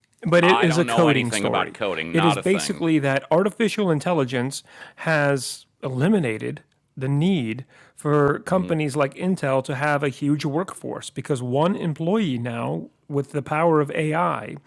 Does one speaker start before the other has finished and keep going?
Yes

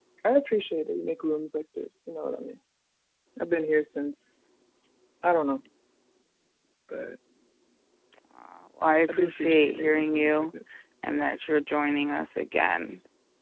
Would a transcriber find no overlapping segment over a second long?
No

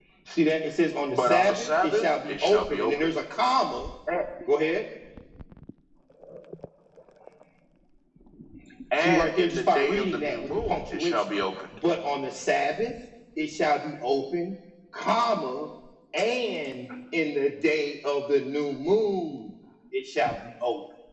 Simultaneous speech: Yes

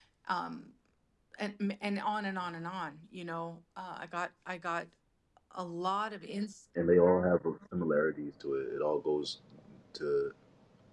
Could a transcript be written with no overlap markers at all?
Yes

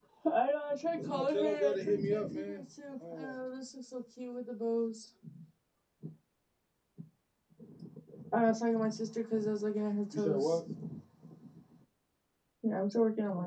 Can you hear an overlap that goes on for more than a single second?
Yes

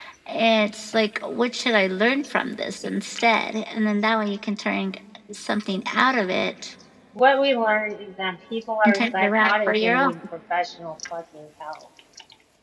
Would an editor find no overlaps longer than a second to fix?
No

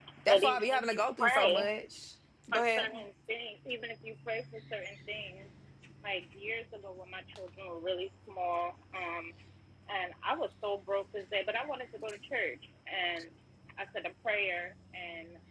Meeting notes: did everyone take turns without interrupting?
No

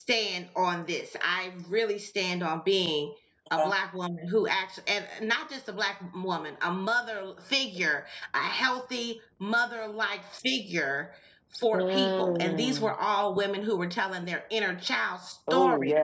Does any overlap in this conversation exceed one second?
Yes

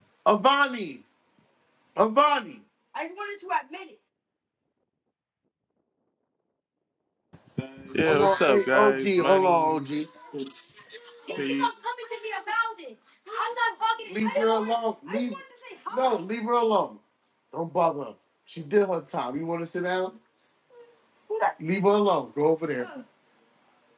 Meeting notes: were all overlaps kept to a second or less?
No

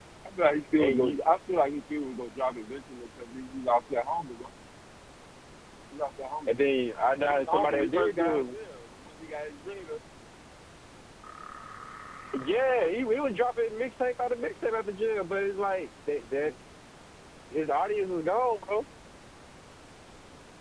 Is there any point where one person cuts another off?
Yes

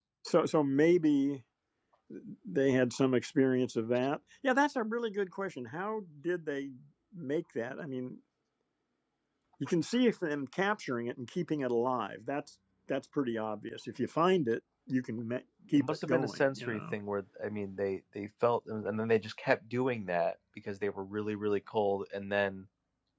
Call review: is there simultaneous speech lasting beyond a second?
Yes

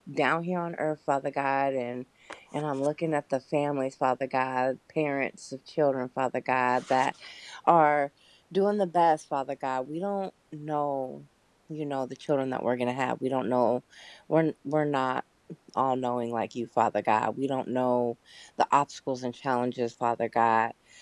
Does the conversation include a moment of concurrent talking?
No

